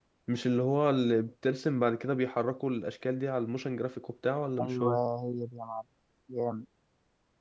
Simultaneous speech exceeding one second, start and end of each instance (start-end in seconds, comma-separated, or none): none